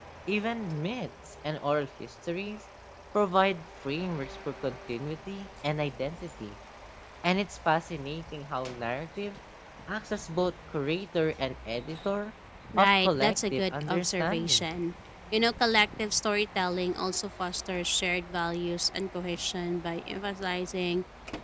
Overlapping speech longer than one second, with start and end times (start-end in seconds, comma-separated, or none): 12.8-14.7